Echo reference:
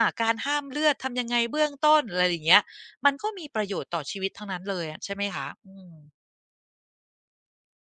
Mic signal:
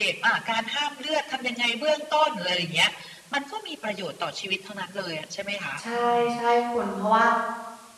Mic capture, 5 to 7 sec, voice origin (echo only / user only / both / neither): both